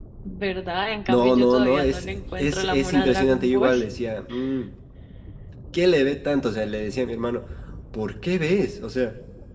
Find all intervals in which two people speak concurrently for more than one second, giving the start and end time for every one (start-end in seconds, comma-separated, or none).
1.1-3.9